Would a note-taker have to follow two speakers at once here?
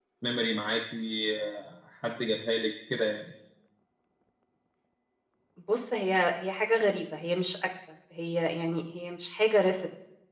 No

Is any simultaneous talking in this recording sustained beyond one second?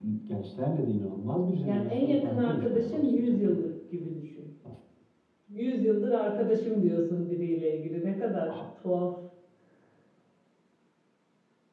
Yes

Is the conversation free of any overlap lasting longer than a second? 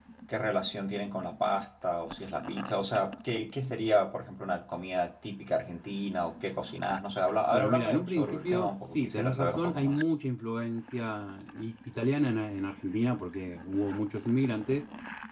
No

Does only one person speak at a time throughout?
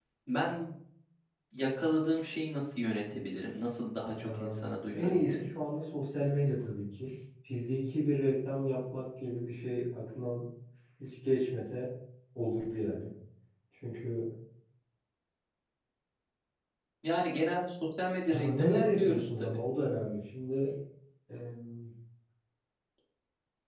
No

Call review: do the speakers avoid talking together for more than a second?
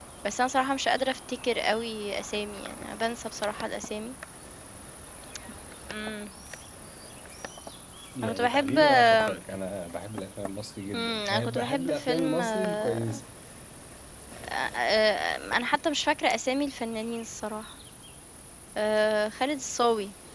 No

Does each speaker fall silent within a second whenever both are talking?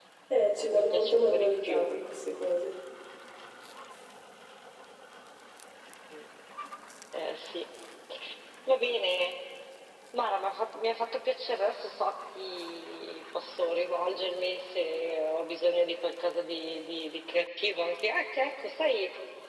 No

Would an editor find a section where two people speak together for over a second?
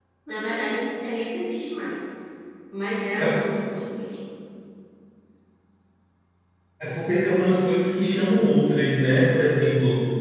No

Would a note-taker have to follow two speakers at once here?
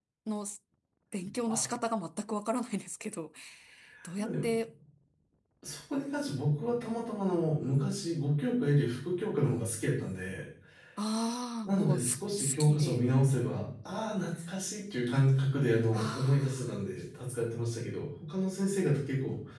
Yes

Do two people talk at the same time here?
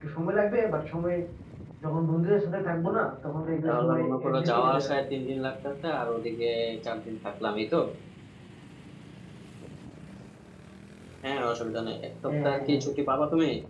Yes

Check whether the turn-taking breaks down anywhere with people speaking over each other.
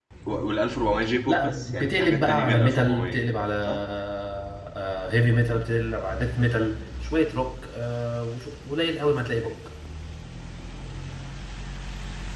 Yes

